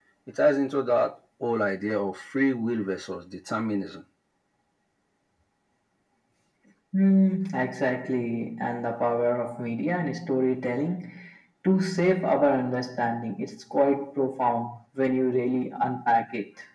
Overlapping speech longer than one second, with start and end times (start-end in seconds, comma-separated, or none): none